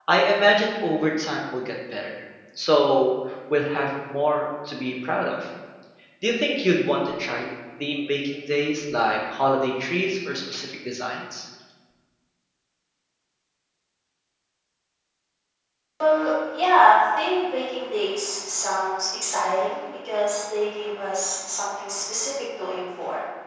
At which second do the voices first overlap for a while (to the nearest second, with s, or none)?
none